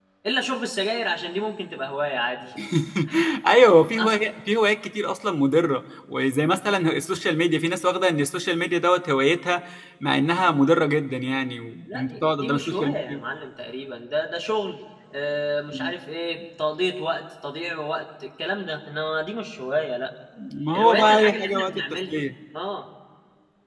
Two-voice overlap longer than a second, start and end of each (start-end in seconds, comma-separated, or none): 11.8-13.2, 20.7-22.1